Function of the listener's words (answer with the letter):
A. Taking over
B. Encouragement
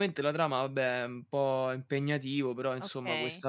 A